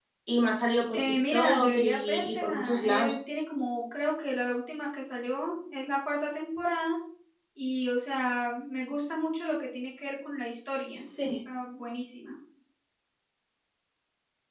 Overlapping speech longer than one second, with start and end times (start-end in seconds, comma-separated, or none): 0.9-3.2